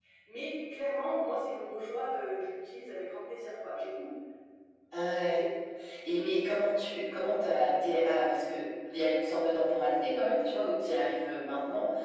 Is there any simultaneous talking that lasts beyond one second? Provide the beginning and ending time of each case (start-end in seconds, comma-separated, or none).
none